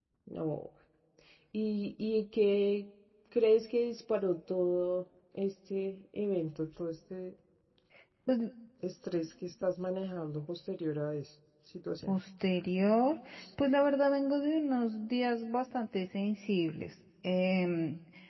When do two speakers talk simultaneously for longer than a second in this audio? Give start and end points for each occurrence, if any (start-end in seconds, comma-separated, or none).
none